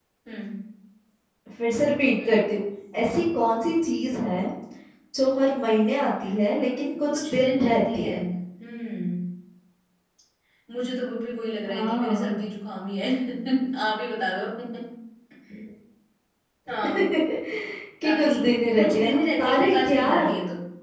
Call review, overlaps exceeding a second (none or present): present